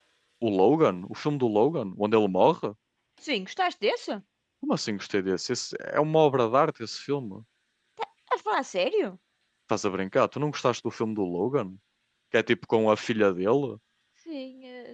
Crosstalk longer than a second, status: none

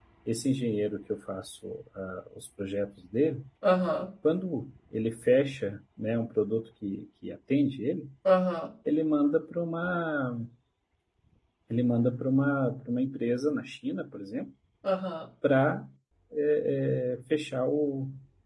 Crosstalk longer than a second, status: none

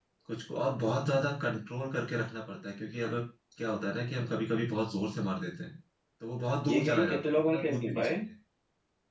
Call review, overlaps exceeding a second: present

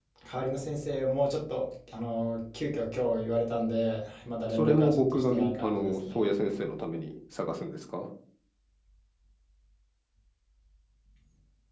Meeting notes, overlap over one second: present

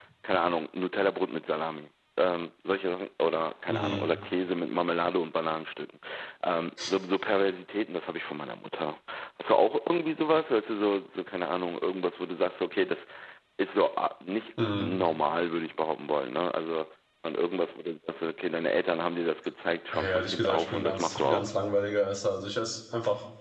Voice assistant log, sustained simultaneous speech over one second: present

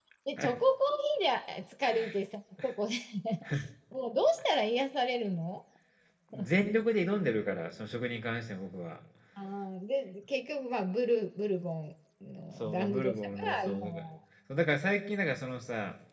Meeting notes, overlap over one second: present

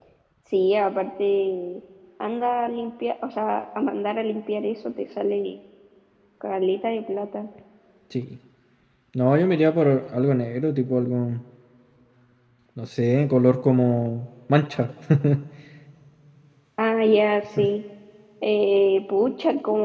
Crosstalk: none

